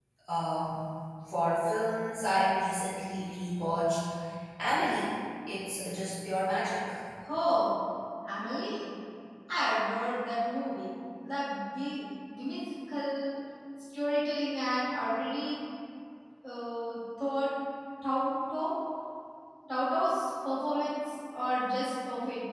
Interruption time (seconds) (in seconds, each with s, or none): none